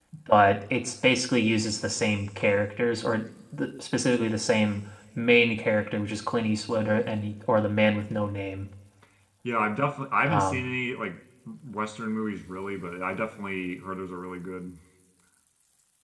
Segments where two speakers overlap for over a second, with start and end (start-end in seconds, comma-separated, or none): none